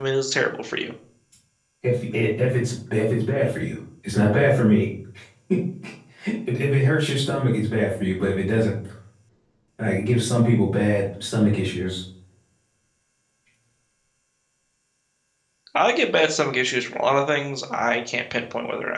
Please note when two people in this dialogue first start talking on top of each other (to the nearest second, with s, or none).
none